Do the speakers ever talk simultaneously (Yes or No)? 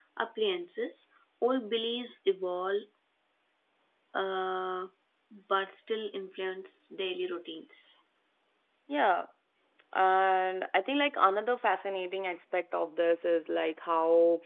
No